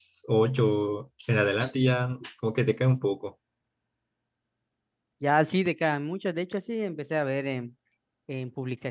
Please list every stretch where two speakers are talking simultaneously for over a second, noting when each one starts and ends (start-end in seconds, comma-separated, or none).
none